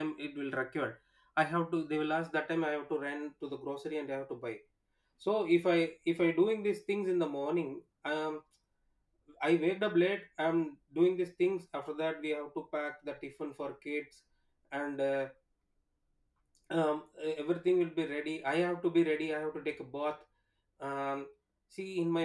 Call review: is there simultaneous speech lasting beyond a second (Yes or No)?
No